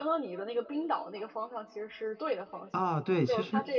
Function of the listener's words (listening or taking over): taking over